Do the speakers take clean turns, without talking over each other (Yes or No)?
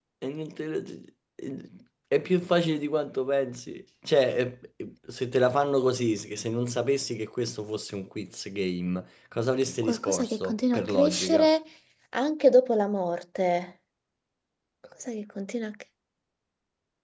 No